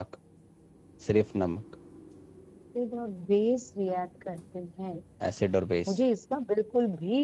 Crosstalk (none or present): none